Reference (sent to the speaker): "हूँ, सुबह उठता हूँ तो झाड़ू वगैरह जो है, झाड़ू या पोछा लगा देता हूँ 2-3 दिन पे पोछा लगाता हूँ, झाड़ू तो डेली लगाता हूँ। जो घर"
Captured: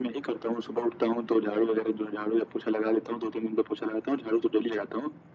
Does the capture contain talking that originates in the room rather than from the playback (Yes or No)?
No